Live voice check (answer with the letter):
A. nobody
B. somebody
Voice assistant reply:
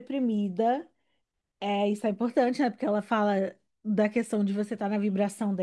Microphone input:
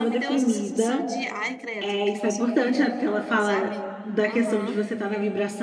B